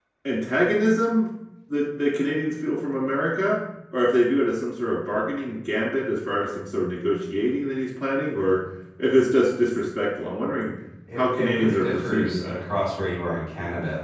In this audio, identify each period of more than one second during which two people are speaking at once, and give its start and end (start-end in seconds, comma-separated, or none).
11.2-12.6